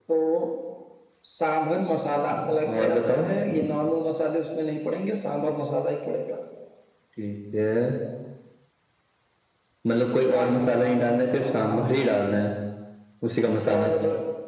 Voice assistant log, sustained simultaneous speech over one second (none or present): present